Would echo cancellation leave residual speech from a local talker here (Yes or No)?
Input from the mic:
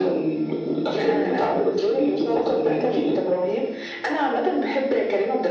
No